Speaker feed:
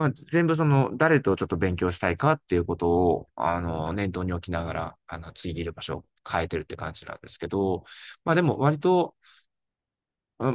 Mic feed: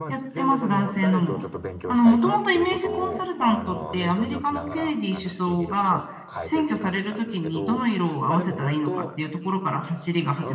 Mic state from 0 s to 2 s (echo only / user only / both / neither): both